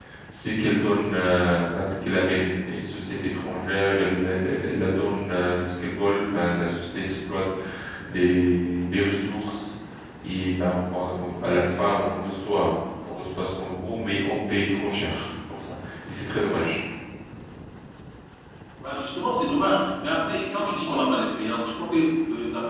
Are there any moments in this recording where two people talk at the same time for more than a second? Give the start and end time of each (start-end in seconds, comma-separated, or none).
none